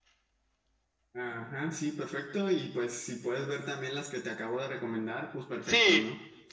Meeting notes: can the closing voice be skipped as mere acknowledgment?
No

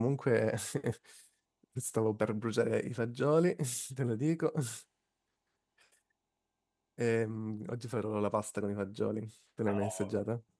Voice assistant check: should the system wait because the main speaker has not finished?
No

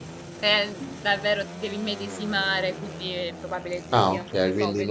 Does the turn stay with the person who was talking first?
No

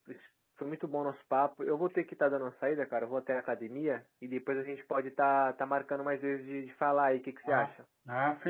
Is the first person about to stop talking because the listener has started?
Yes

